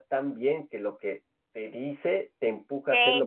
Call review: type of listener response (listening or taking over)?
taking over